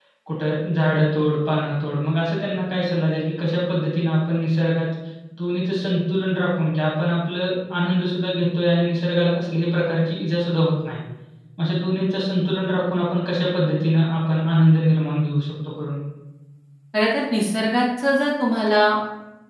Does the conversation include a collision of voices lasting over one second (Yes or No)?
No